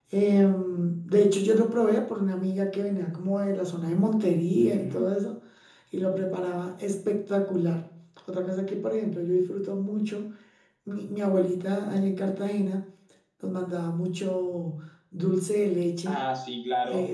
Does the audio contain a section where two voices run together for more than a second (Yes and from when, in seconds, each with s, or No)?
No